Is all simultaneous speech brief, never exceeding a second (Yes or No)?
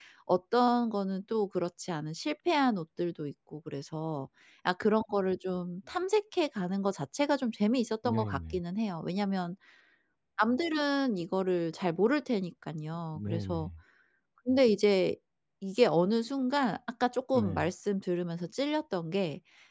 Yes